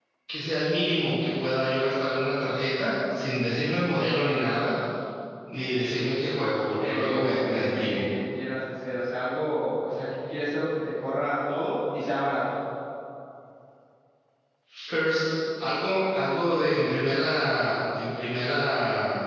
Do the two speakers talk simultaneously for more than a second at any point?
Yes, from 6.7 s

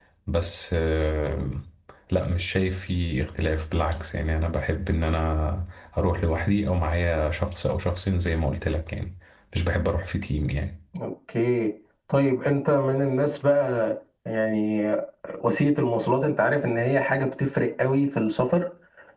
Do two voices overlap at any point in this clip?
No

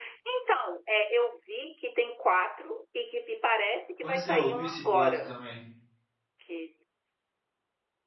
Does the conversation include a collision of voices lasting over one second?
Yes, from 4.0 s

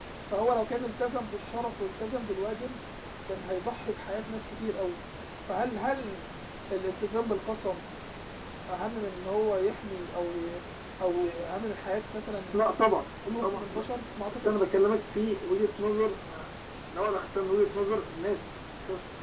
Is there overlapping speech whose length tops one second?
No

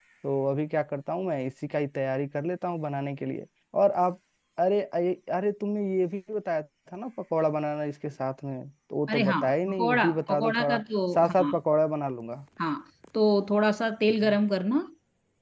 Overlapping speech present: Yes, from 9.1 s

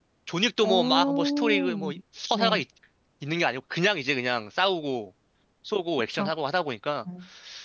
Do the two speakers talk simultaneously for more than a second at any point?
Yes, from 0.6 s

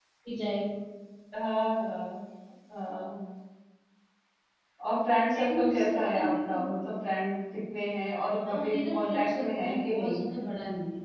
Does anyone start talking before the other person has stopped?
Yes, from 5.3 s

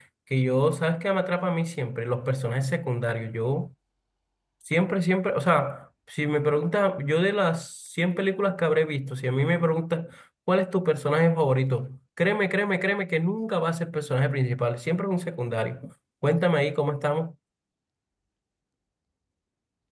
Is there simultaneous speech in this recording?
No

